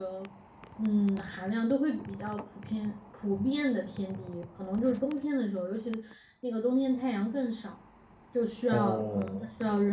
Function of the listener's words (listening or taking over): listening